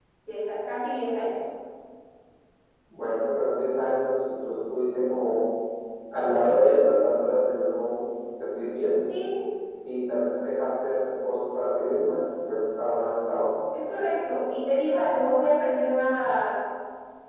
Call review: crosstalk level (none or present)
none